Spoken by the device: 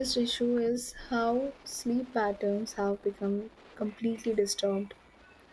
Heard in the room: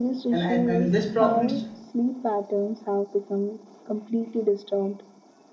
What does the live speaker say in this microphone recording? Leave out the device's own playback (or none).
And, and, and these problems